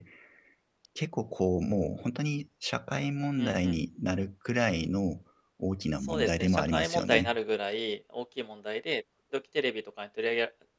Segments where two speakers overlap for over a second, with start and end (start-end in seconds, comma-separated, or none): 6.0-7.3